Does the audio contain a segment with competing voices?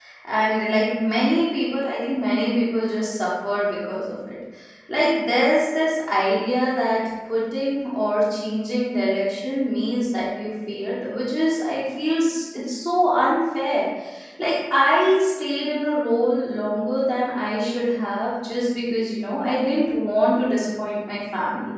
No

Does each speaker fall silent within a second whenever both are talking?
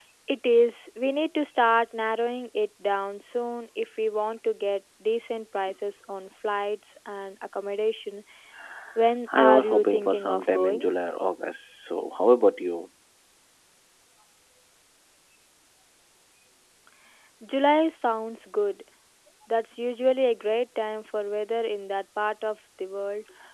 No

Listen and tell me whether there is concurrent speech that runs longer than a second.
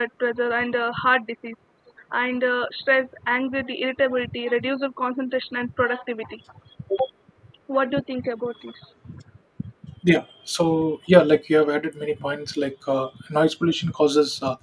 No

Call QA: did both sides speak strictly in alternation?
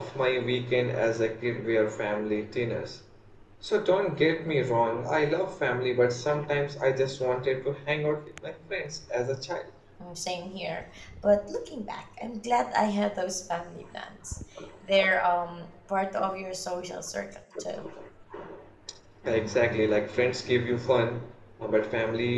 Yes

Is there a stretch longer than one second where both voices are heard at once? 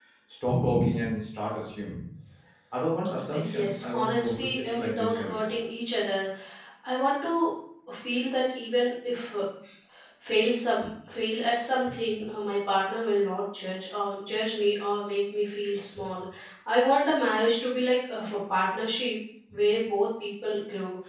Yes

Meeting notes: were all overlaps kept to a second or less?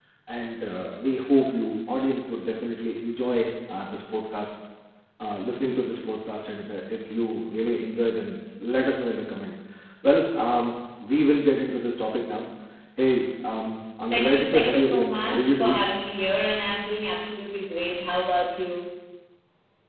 No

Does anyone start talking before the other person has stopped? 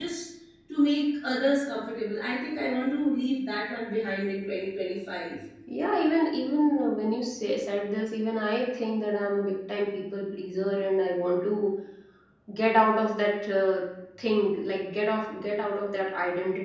No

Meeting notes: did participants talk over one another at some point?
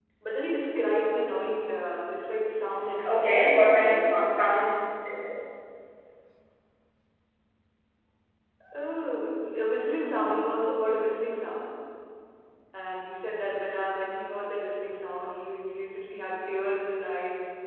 Yes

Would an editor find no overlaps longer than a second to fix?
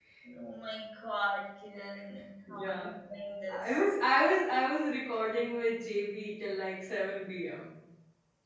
Yes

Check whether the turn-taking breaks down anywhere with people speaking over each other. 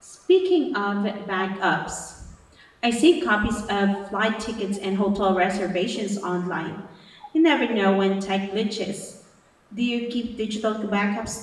No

